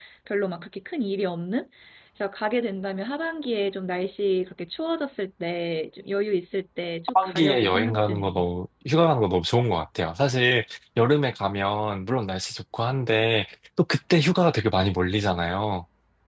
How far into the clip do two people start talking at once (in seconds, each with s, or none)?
7.1 s